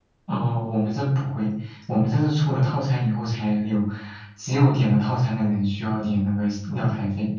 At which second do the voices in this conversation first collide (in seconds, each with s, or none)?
none